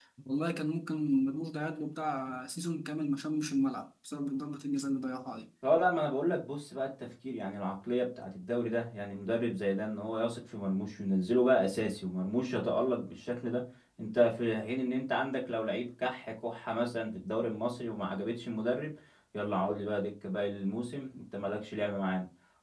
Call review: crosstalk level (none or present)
none